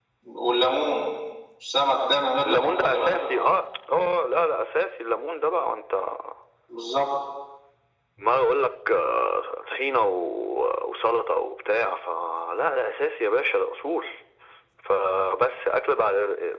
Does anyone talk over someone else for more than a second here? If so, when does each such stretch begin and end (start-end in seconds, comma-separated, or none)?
2.4-3.6